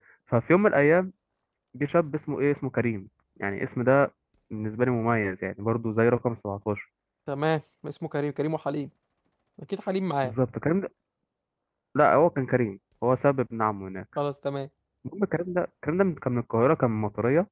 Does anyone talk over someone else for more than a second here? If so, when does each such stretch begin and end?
none

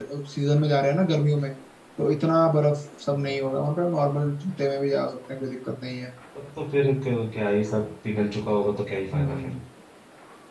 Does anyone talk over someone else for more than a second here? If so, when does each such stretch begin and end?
none

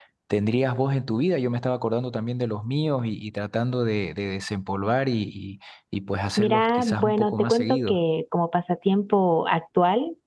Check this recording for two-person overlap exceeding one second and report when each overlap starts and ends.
6.4-8.0

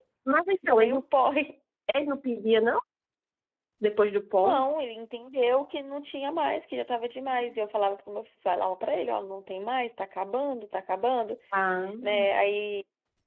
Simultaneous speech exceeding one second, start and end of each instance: none

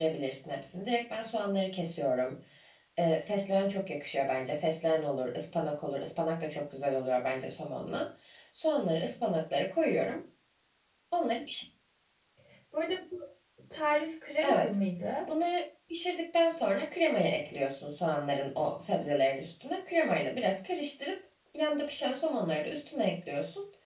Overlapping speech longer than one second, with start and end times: none

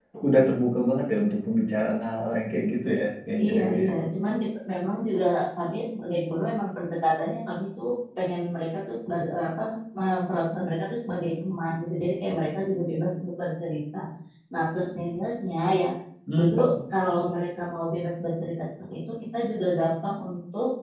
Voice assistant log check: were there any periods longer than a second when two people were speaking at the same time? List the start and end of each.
none

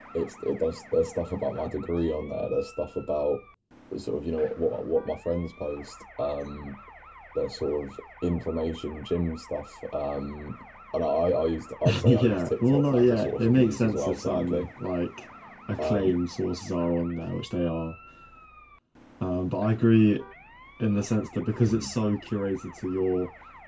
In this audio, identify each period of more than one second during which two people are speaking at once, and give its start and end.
12.0-14.7

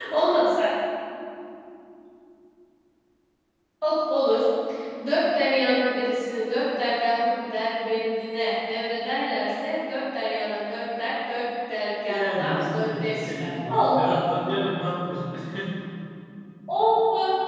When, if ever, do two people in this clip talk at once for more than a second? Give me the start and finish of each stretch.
12.1-14.2

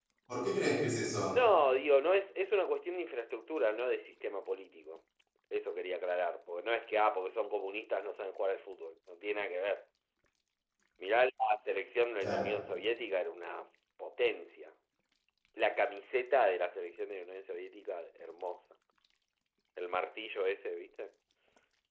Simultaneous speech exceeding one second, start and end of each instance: none

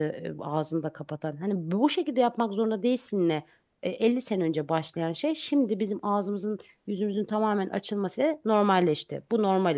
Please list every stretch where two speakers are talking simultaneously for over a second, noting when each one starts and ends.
none

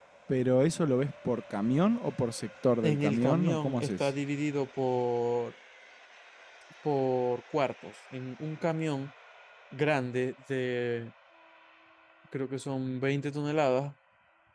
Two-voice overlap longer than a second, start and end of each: 2.8-4.1

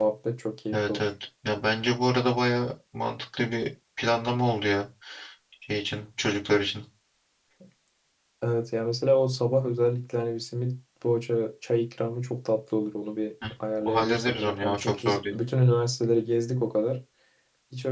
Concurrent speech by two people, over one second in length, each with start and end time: 13.8-15.3

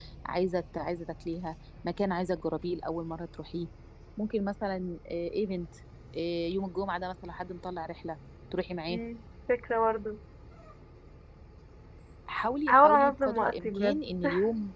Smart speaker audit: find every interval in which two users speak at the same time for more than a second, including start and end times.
12.7-14.0

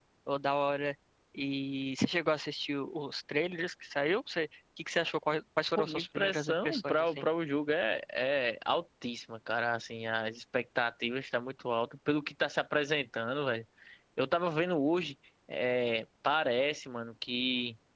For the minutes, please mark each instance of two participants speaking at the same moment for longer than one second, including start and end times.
5.8-7.2

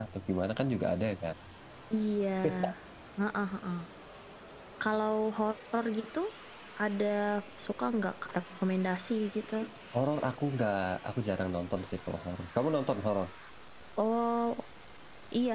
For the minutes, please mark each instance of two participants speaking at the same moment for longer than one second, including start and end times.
none

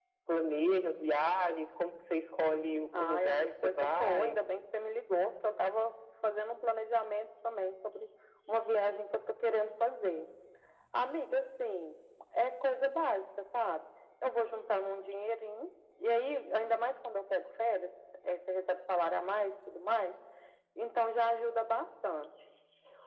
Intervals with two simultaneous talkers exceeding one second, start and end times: 2.9-4.4

